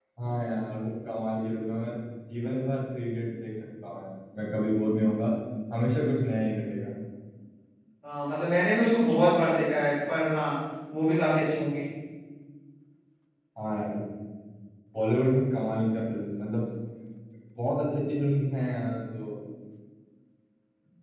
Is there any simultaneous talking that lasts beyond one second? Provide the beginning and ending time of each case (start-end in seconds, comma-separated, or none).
none